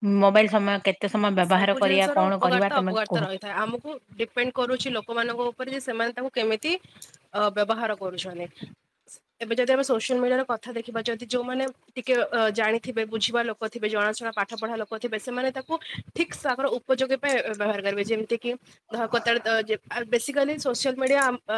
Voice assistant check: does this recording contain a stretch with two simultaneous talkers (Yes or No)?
Yes